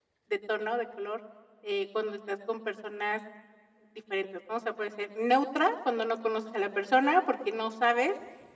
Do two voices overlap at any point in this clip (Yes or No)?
No